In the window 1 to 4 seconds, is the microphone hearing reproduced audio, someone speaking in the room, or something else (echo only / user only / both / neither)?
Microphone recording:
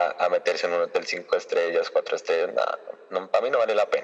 echo only